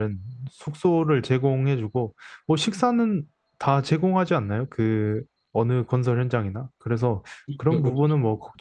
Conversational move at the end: listening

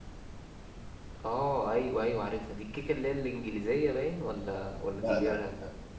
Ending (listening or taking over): taking over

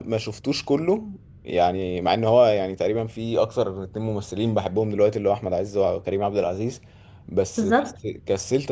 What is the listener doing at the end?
listening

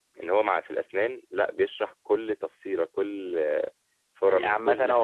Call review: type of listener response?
taking over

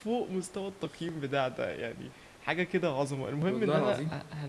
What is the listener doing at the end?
listening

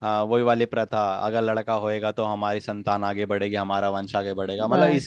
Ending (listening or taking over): listening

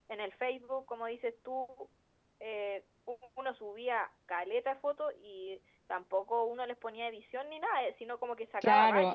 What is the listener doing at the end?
taking over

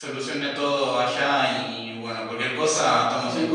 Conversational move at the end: taking over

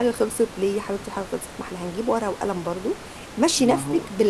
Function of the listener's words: listening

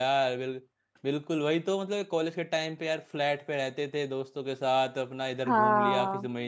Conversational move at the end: listening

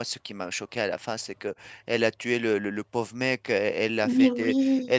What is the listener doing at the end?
listening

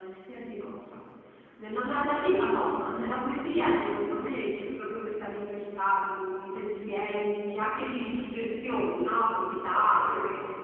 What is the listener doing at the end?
taking over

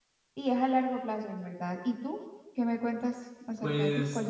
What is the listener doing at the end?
taking over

